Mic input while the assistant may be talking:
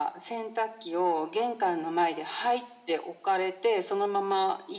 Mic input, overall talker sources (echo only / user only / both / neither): echo only